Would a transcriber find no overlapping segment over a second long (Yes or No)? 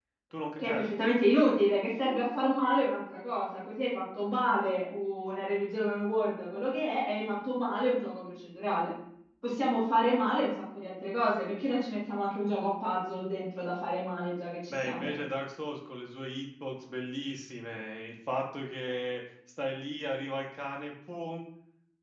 Yes